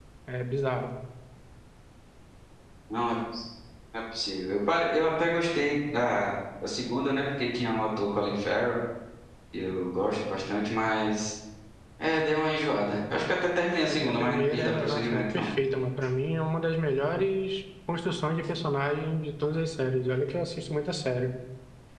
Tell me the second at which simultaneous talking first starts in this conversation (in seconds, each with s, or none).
13.8 s